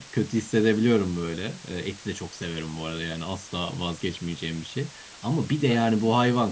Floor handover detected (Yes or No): No